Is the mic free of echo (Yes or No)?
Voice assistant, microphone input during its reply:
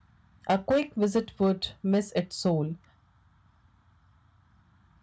Yes